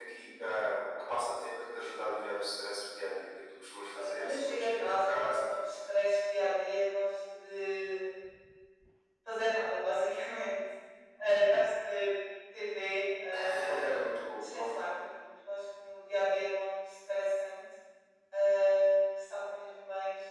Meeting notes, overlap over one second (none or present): present